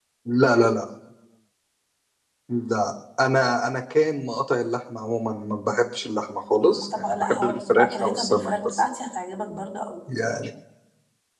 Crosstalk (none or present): present